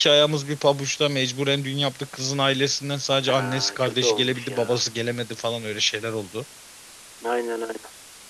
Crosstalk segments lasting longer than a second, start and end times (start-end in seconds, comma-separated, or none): 3.3-4.8